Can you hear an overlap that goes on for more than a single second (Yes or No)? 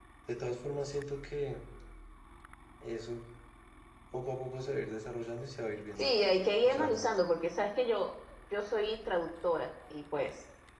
No